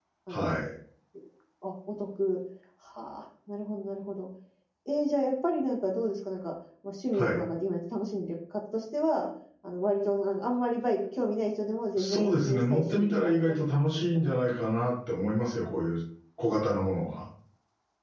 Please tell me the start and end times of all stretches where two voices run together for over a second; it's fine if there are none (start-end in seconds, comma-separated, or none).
12.0-14.3